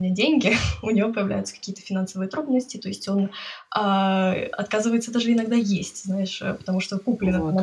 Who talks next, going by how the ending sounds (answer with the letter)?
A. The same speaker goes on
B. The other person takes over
A